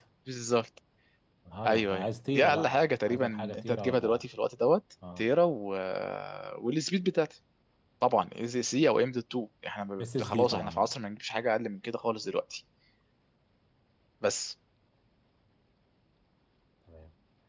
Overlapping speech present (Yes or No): Yes